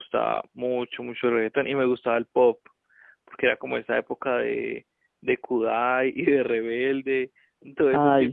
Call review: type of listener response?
listening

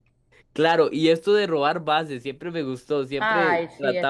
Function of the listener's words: taking over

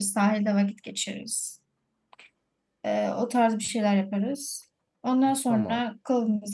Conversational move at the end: listening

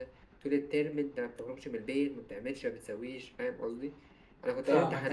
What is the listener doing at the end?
listening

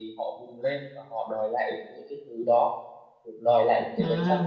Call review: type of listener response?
listening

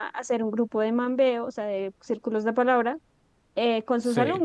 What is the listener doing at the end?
listening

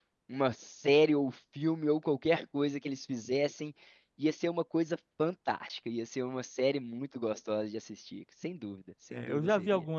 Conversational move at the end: taking over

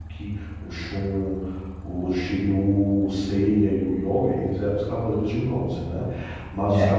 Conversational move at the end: listening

